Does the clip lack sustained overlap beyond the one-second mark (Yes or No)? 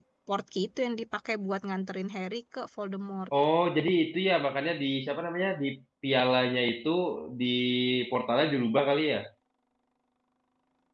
Yes